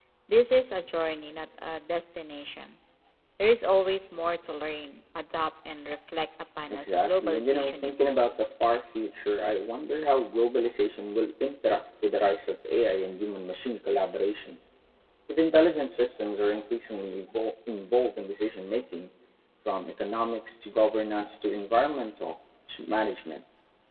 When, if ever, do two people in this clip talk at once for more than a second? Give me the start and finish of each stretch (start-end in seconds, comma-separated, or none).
6.7-8.5